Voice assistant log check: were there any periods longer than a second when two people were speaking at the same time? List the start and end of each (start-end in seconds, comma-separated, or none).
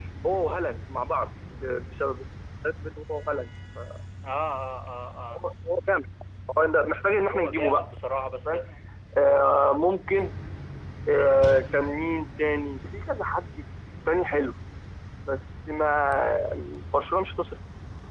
7.3-8.6